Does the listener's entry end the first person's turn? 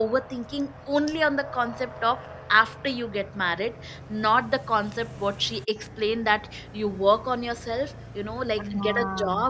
No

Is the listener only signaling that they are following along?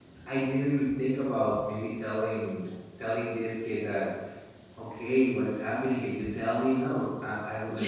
Yes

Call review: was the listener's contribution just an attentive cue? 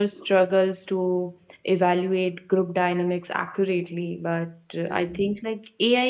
Yes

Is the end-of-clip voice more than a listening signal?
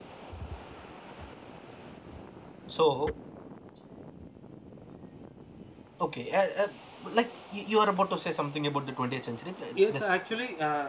Yes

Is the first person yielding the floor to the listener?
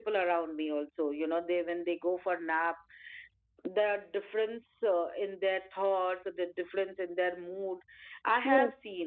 Yes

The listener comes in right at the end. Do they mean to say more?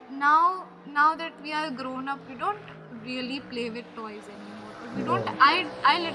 No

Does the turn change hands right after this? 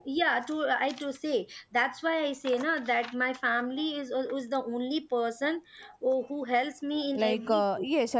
Yes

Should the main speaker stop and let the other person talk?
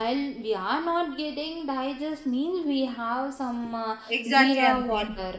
Yes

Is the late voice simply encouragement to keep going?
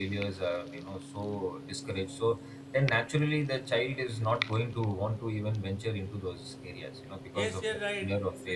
No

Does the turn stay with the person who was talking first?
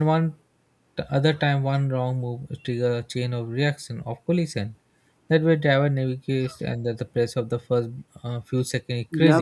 No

